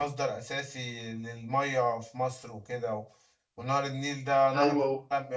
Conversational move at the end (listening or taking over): listening